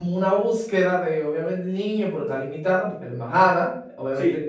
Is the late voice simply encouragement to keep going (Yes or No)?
Yes